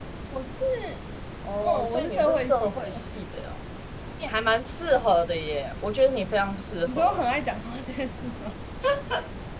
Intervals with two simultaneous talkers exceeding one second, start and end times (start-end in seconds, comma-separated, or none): 1.6-3.0